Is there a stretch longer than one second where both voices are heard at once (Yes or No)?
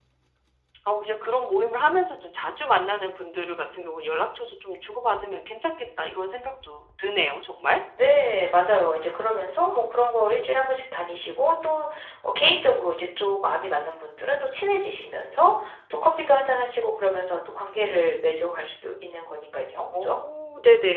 No